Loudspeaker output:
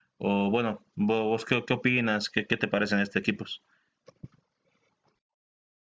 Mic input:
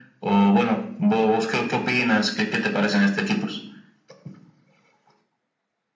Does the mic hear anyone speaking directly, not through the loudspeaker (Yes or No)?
No